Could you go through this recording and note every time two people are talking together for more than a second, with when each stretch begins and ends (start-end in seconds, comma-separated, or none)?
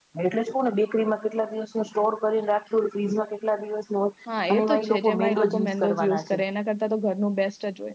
4.5-6.4